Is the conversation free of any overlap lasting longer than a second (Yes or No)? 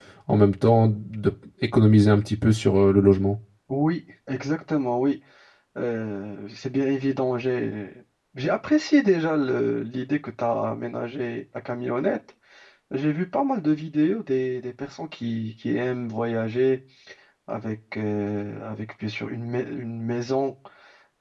Yes